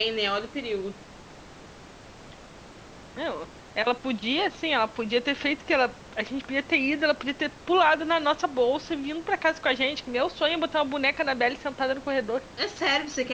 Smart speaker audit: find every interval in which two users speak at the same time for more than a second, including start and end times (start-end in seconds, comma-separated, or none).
none